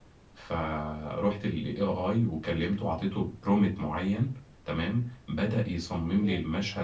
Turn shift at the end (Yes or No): No